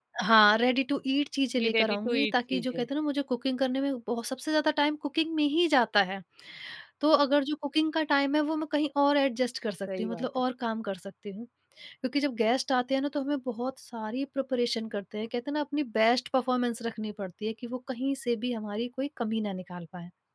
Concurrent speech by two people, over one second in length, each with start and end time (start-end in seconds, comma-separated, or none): 1.6-2.8